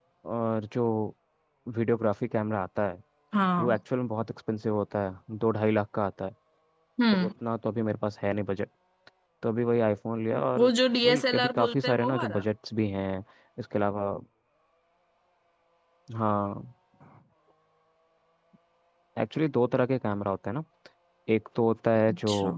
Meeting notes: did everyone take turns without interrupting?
No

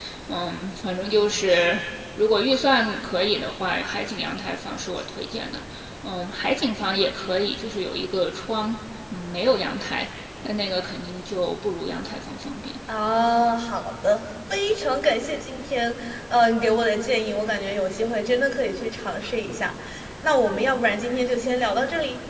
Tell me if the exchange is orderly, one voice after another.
Yes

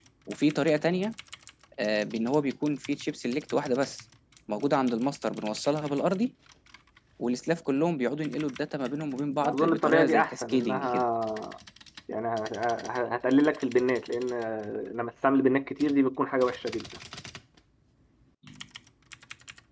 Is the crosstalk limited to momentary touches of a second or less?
No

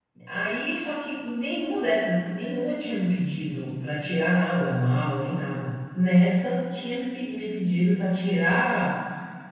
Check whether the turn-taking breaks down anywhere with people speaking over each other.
No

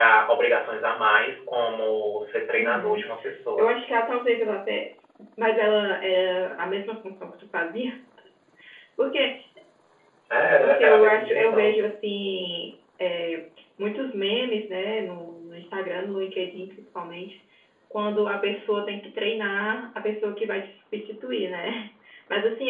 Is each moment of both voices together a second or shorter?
No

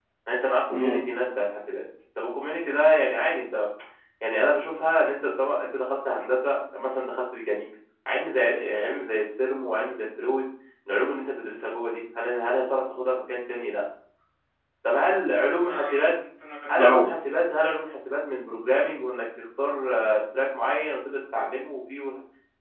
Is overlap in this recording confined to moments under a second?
Yes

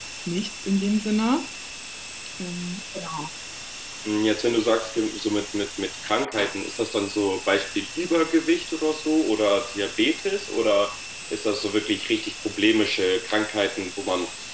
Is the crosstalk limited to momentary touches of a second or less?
Yes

